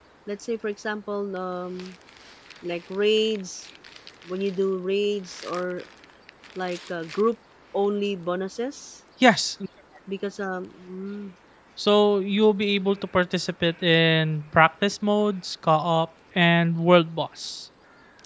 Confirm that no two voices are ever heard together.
Yes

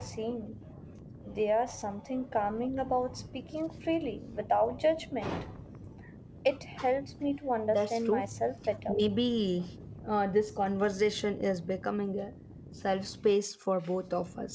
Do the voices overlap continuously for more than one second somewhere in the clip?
No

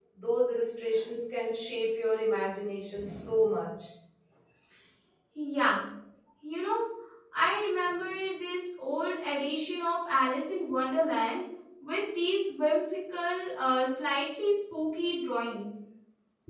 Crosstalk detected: No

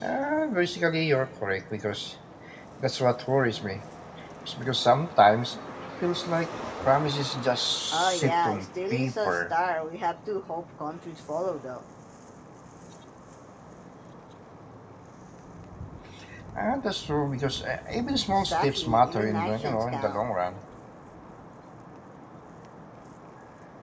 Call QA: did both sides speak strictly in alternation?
No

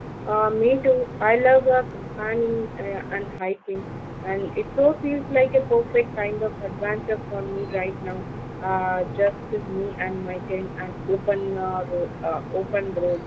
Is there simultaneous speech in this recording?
No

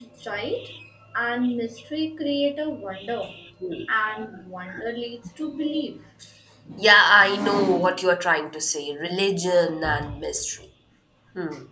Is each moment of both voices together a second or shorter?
Yes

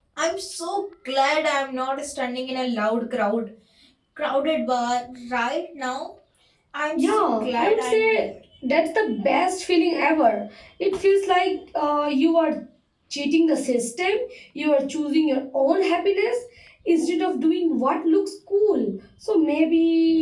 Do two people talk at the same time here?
Yes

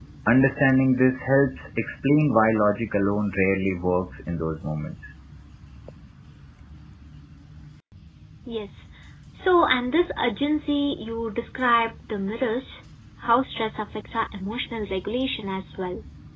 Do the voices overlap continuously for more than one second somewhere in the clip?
No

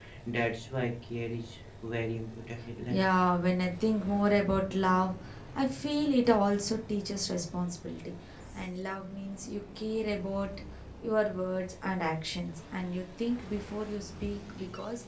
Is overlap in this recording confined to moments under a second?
Yes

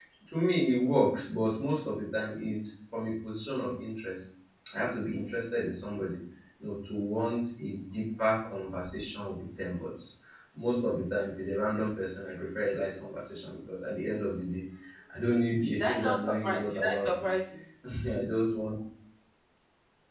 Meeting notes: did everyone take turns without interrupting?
No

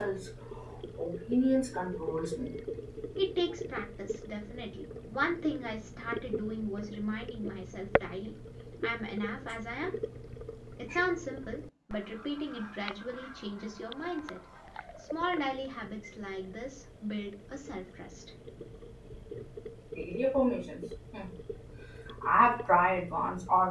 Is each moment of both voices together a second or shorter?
Yes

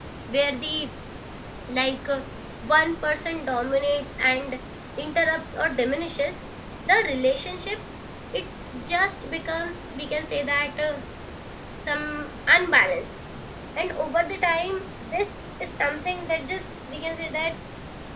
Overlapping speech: No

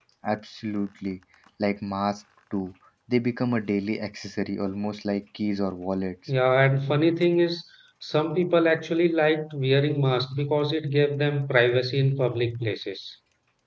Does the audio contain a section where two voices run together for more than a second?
No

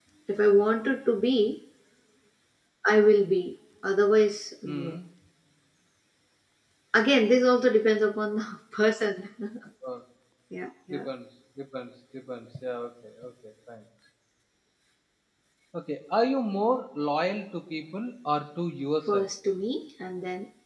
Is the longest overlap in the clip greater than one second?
No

